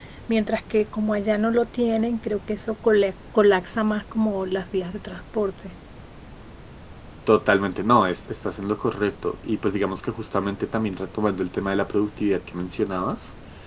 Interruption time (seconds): none

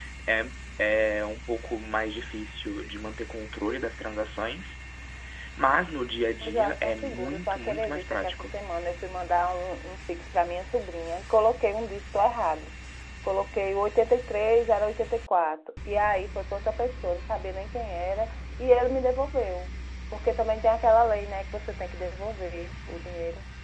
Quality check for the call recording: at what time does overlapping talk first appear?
6.4 s

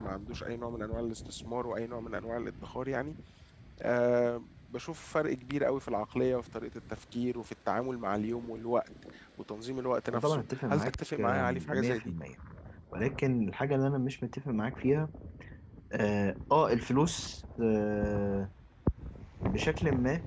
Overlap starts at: 10.1 s

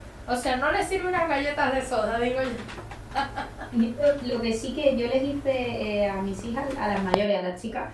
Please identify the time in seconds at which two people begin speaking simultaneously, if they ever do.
none

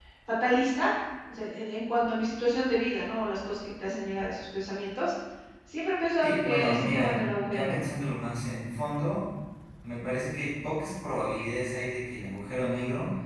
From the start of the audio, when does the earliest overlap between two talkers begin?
6.2 s

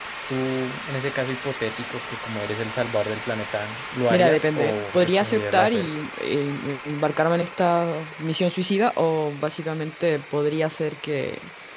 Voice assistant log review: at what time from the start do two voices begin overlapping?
4.1 s

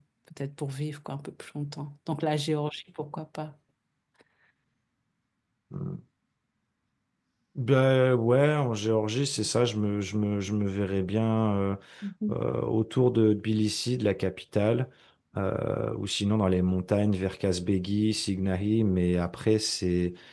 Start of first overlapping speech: none

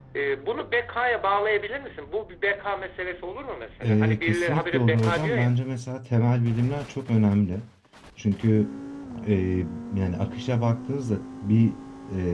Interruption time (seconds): 3.8 s

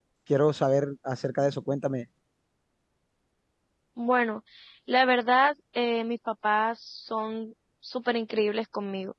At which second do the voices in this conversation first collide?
none

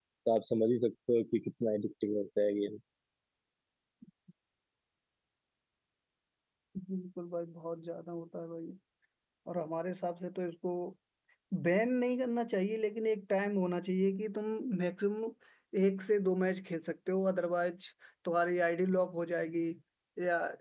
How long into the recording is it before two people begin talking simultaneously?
none

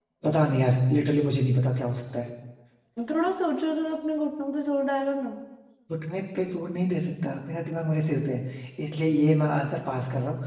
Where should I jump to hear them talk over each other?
none

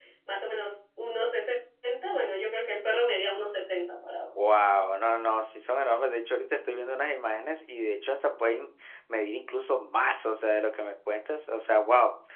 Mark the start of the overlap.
none

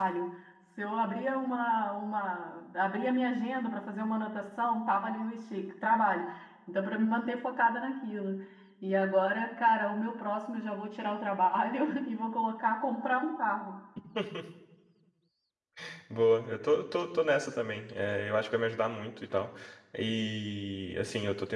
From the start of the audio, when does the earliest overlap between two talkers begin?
none

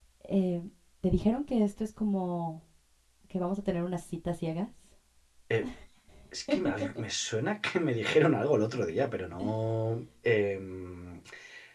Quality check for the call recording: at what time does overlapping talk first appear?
none

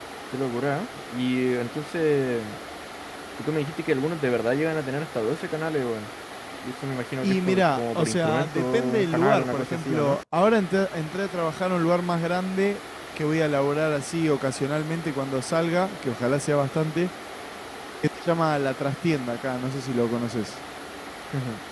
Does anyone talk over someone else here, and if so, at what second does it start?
7.2 s

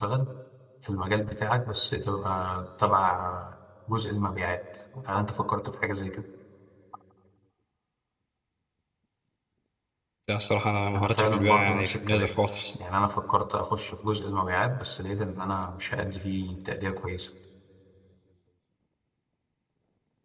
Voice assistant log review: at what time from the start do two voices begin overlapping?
11.0 s

